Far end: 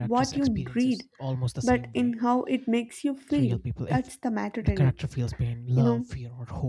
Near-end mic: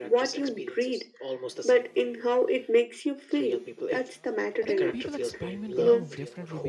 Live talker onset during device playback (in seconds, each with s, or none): 4.6 s